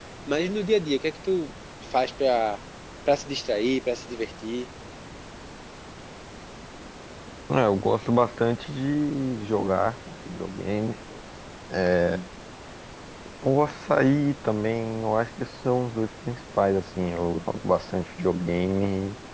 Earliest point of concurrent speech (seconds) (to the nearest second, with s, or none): none